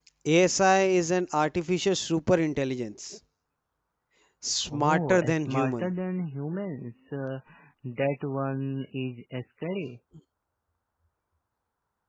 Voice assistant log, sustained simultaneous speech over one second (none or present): present